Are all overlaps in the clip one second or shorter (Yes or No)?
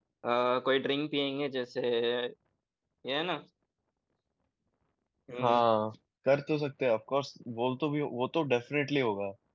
Yes